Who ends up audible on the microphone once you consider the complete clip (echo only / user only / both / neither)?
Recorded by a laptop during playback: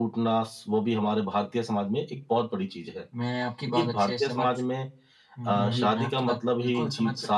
both